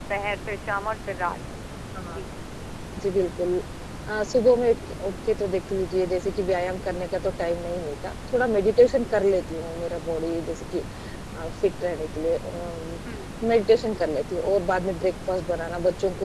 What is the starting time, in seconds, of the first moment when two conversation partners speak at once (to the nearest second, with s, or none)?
none